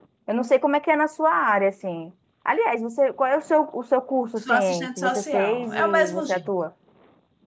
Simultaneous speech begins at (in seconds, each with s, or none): 4.5 s